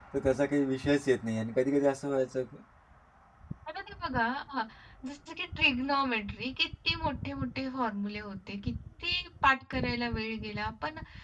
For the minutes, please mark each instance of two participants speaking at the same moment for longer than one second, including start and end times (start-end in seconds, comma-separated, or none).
none